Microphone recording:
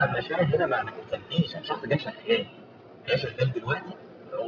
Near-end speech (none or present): none